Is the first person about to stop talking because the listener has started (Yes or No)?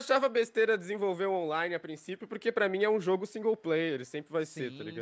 Yes